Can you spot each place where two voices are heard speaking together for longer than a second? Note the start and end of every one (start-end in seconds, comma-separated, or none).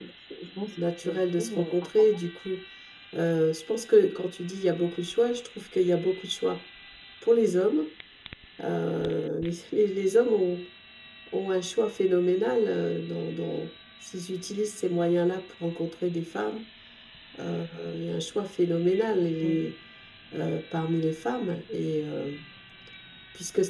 1.0-2.2